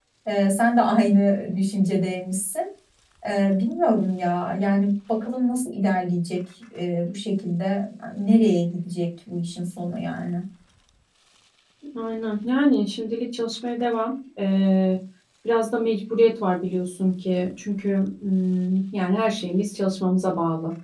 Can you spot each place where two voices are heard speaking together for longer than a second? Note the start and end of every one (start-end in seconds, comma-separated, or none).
none